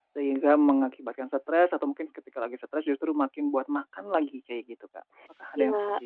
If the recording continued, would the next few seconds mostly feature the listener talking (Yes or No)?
Yes